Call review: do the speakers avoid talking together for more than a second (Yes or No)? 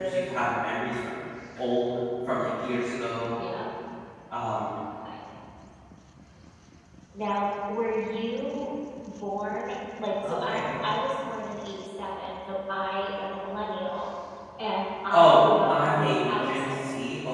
No